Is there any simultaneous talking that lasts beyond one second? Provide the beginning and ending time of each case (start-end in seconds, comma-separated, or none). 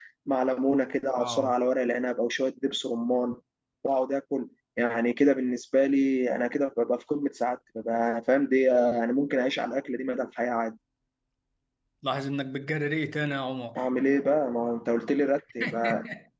none